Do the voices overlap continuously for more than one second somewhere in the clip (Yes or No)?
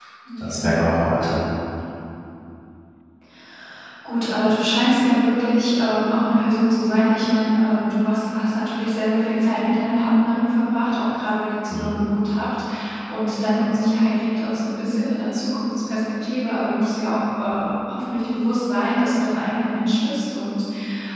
No